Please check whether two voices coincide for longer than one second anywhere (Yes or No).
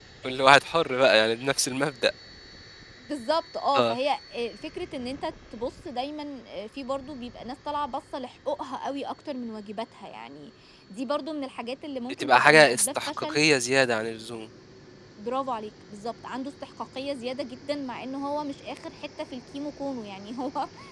Yes